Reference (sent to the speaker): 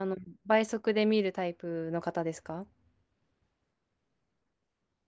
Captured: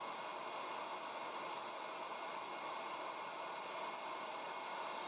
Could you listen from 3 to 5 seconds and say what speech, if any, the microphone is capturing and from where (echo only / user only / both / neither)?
neither